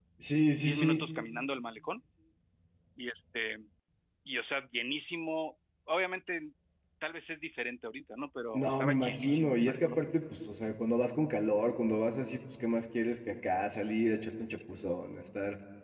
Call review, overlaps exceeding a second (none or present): present